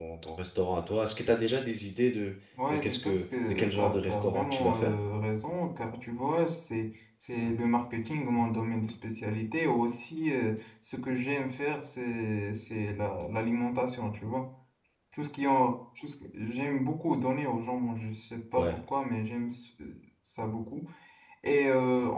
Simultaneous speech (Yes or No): Yes